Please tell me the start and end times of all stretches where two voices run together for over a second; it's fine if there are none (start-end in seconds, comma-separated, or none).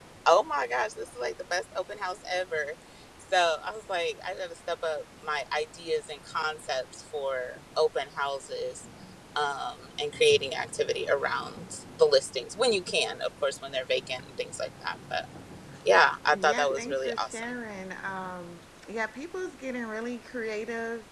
16.2-17.4